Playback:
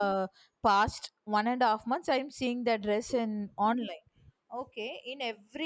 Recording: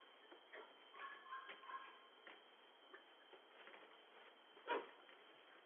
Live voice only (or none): none